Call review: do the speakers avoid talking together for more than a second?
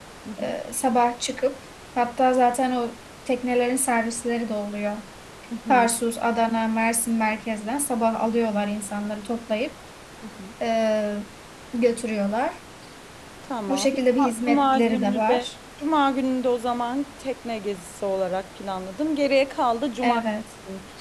No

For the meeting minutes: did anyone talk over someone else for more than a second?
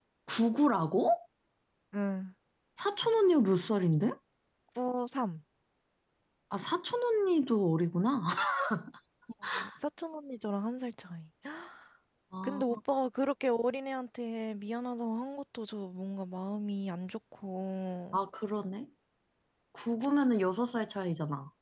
No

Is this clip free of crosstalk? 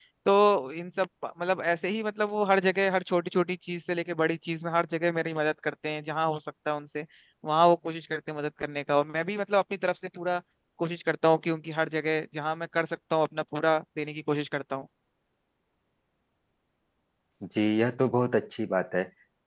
Yes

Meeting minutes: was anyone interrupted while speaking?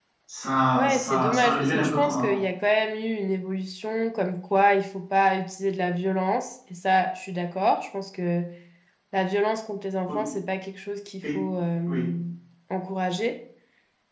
Yes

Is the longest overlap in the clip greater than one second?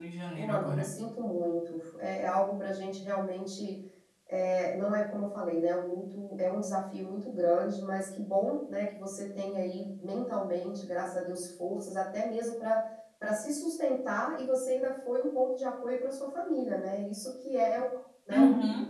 No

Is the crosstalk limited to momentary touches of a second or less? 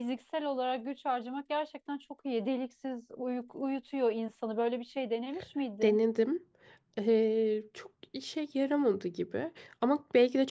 Yes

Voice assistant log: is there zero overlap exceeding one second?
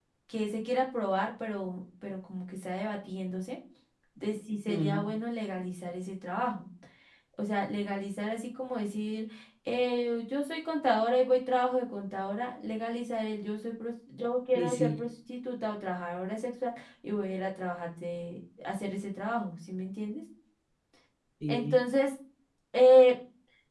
Yes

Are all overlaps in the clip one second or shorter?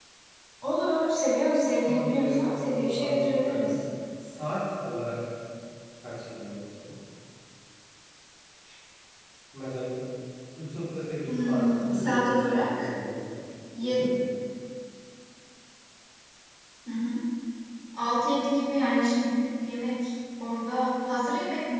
No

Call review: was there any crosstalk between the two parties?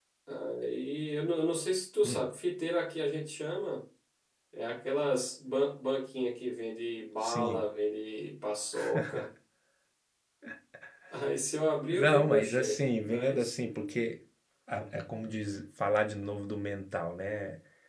Yes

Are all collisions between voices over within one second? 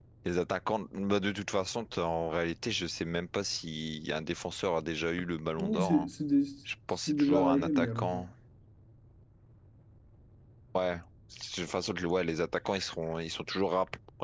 No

